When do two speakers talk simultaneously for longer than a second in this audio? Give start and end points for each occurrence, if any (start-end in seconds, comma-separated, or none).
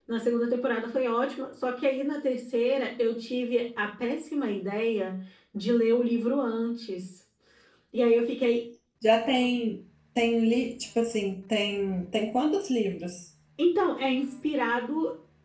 none